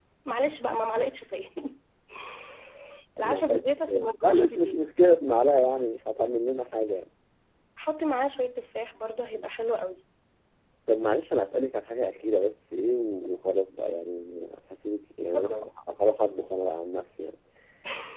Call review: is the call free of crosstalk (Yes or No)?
No